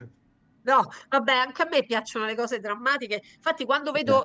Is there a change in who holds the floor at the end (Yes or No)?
No